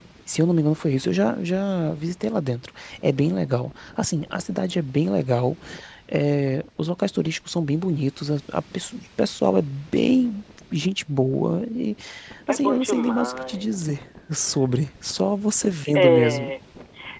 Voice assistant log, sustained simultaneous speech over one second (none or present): present